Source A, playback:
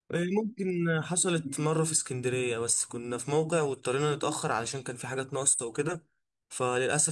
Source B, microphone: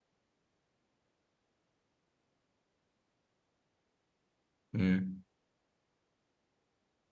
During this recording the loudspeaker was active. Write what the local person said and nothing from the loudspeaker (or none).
امم